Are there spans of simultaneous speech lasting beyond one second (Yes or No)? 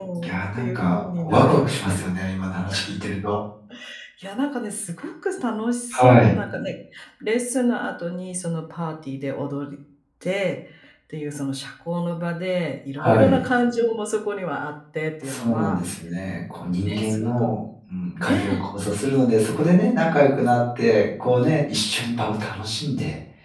Yes